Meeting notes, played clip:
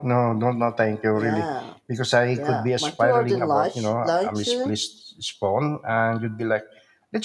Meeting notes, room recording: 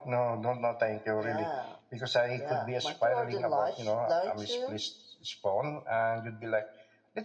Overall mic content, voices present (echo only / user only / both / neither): echo only